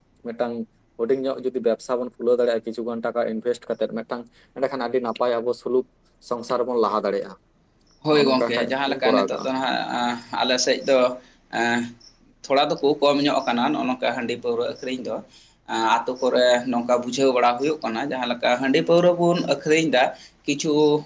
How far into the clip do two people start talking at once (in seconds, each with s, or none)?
8.1 s